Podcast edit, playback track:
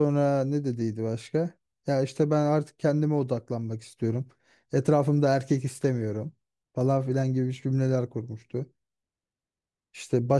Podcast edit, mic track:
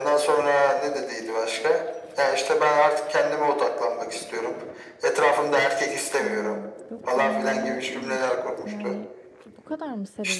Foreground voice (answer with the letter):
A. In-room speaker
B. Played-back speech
B